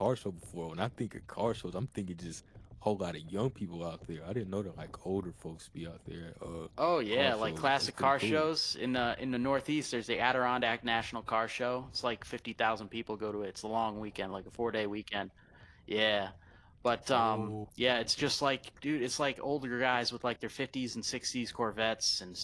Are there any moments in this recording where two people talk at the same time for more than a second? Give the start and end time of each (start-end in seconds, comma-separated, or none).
7.1-8.5